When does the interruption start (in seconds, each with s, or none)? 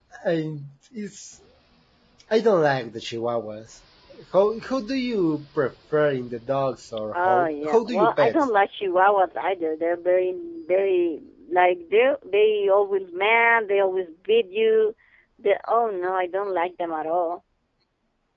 7.1 s